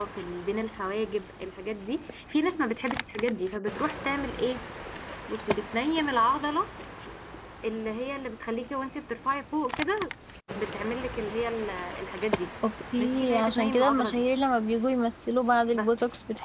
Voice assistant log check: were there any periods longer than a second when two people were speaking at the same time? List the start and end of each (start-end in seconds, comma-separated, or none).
13.0-14.2